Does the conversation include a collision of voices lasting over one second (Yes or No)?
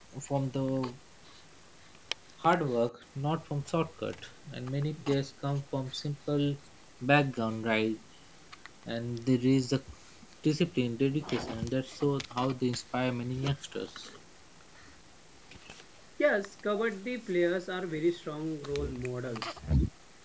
No